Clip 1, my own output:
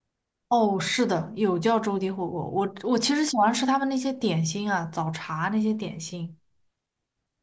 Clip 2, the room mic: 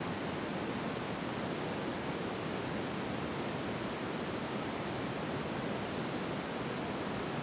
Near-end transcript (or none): none